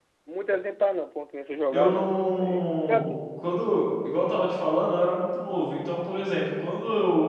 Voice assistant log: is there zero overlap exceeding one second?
No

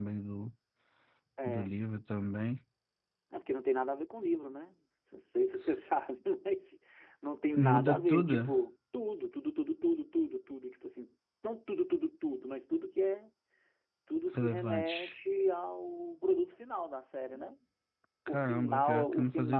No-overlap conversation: No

